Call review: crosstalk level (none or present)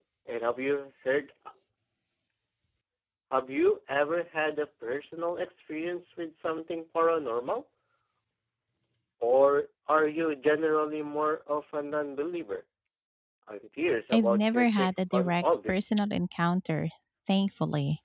present